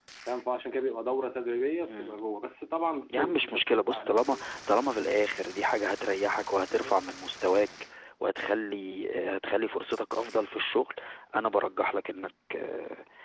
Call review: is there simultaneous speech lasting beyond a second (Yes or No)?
Yes